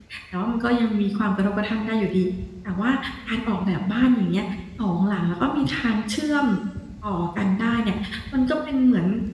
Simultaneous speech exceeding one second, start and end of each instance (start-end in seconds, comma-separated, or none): none